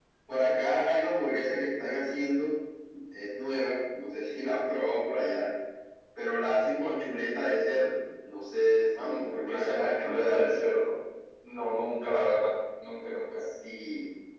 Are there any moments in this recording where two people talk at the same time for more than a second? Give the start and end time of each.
8.8-10.4

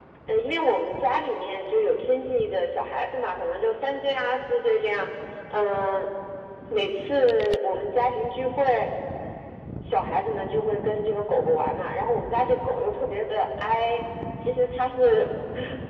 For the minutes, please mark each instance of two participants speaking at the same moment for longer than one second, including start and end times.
none

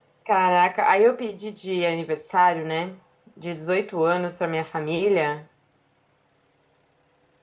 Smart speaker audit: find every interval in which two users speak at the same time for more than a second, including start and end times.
none

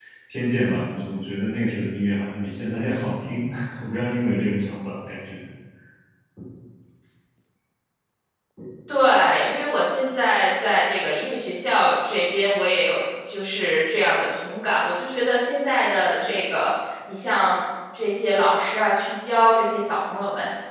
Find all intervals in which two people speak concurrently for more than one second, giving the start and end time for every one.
none

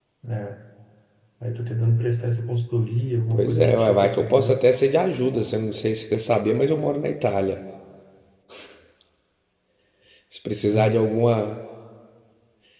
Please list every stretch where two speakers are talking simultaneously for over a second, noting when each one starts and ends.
3.3-4.6

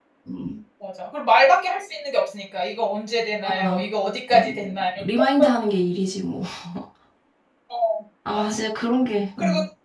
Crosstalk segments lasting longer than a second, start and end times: none

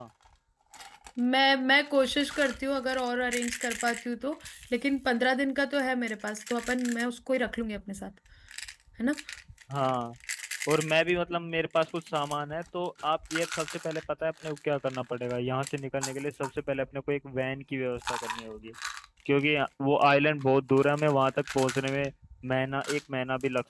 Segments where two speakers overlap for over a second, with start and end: none

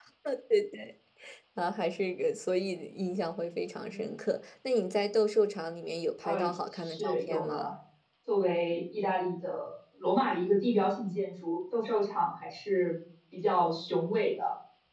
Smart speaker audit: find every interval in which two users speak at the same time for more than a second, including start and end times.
6.2-7.7

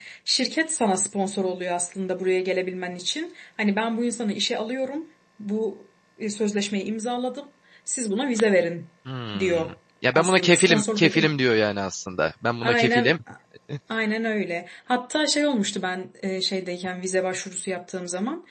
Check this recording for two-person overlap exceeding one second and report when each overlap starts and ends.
10.1-11.4

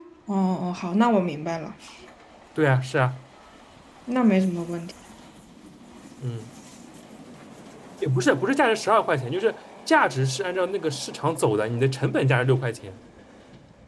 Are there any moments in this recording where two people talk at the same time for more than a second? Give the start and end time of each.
none

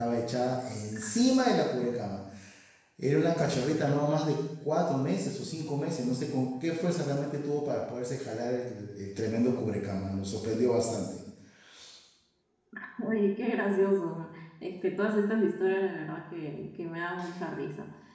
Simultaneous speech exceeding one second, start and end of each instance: none

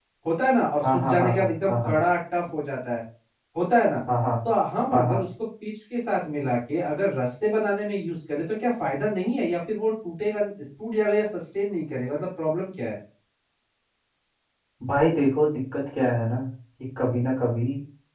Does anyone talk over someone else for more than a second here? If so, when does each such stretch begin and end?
0.8-2.0

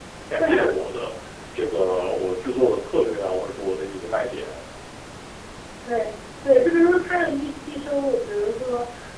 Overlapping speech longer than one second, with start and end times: none

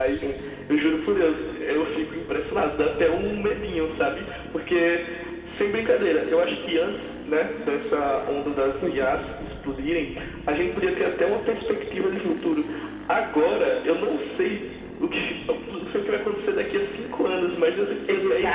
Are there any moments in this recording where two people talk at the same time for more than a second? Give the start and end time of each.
none

